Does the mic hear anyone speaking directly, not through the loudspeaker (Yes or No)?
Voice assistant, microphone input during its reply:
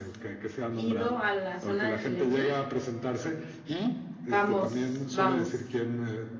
Yes